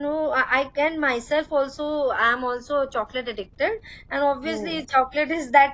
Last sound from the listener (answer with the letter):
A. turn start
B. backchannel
B